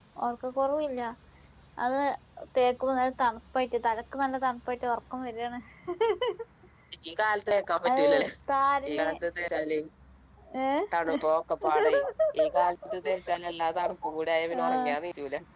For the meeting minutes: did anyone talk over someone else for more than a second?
No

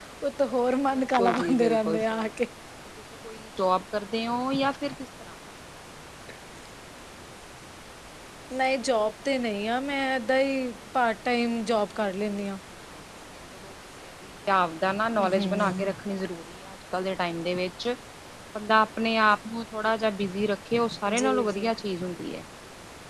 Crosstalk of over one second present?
Yes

